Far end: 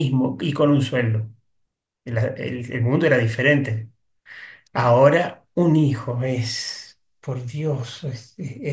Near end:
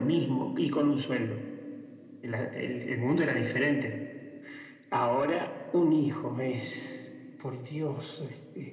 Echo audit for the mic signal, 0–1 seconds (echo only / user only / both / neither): echo only